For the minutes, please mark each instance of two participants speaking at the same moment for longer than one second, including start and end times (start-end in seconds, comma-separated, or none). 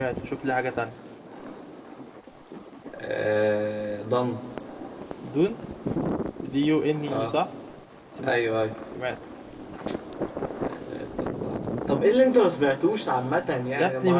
none